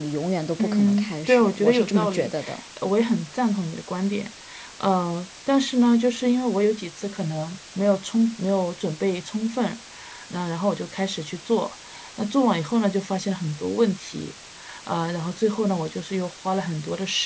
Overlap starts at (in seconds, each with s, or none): 0.6 s